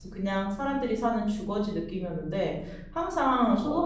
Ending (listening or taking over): listening